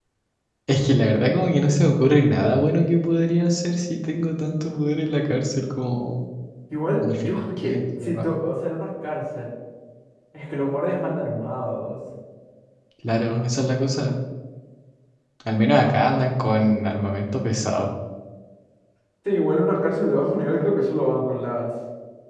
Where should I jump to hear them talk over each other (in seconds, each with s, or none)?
7.0 s